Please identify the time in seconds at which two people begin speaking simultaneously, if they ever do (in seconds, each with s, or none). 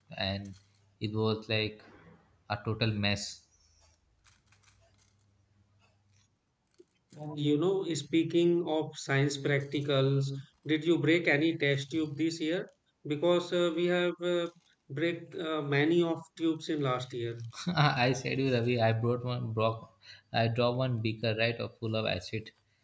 none